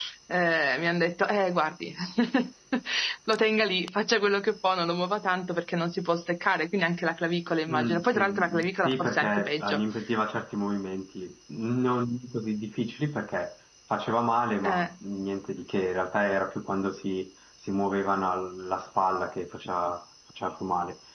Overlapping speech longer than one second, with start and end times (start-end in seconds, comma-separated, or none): 7.7-9.8